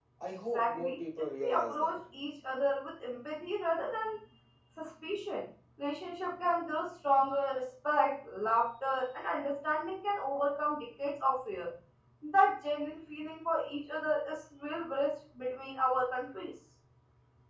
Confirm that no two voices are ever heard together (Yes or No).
No